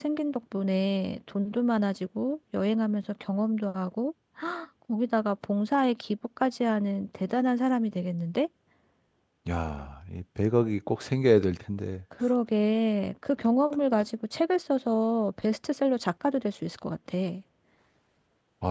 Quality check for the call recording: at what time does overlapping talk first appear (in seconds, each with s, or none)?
none